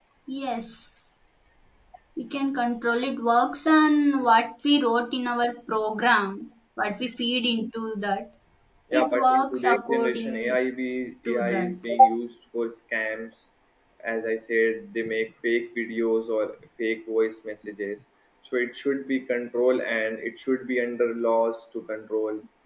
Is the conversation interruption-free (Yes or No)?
No